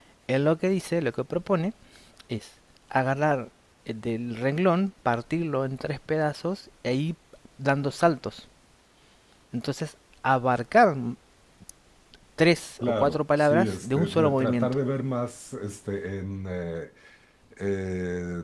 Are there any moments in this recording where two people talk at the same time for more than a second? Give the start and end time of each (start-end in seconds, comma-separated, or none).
12.8-14.8